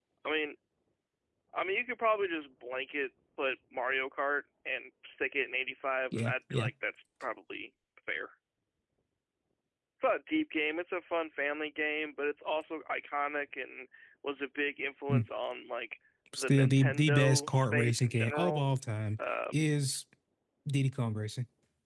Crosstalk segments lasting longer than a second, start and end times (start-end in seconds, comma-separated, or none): 16.4-18.6